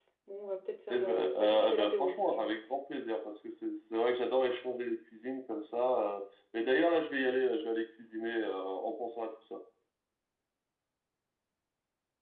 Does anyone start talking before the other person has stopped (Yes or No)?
Yes